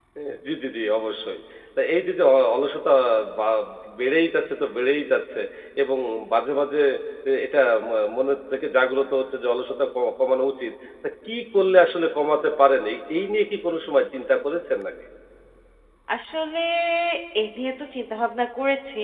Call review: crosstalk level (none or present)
none